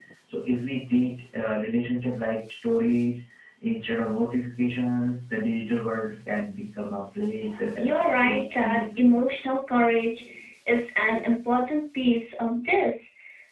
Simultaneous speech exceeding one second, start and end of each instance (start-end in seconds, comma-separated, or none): 7.8-9.2